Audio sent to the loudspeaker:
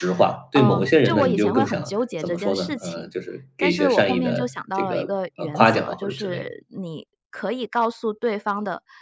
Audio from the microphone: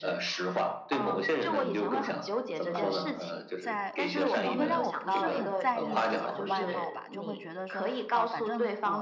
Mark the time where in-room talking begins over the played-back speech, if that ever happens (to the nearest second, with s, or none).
3 s